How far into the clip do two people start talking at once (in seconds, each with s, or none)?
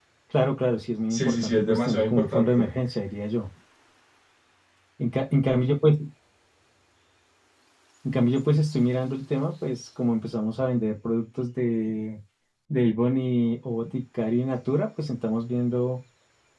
1.1 s